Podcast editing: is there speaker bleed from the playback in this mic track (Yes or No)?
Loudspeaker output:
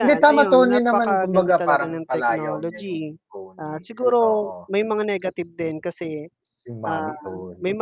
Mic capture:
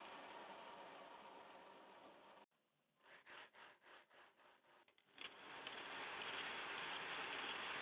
No